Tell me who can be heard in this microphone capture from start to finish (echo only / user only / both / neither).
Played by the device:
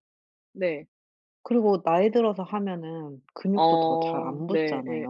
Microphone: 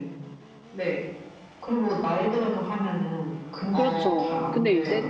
both